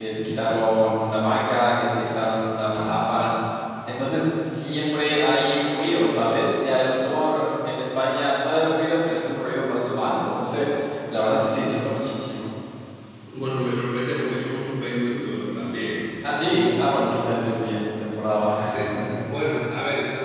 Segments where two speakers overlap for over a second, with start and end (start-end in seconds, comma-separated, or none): none